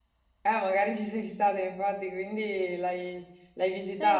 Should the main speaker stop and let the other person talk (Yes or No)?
Yes